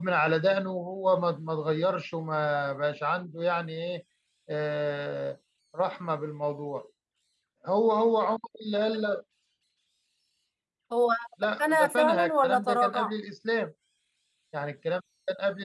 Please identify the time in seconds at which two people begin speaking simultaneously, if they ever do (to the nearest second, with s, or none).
12 s